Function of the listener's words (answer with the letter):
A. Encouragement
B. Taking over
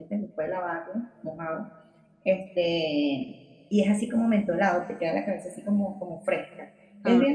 A